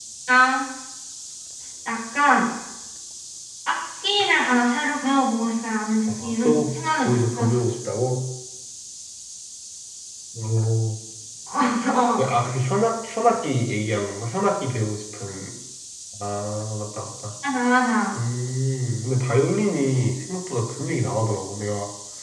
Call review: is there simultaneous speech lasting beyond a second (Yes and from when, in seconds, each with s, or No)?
Yes, from 6.1 s